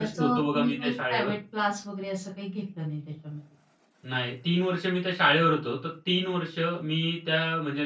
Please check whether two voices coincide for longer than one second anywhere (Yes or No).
Yes